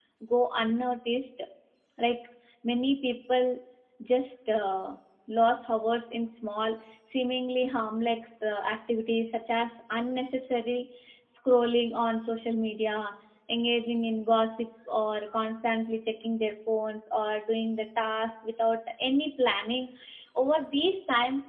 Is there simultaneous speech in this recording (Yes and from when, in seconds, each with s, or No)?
No